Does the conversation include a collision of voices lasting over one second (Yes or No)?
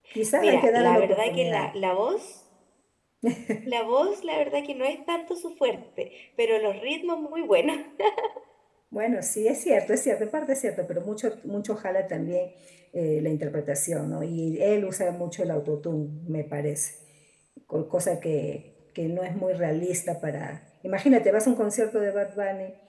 Yes